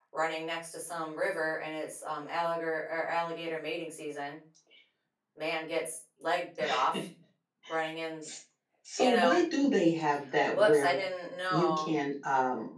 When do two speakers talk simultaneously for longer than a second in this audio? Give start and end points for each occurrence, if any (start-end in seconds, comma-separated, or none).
none